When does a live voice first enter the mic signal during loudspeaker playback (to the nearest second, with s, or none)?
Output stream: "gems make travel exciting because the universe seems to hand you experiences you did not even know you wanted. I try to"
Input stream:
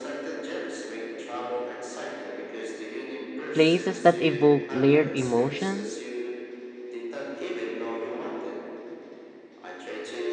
4 s